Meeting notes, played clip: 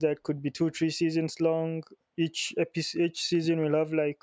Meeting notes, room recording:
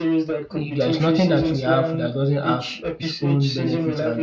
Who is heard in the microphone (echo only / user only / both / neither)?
both